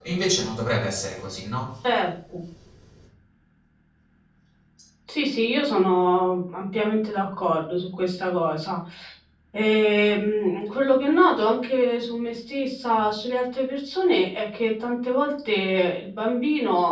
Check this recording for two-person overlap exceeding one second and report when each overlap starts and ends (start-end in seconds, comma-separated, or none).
none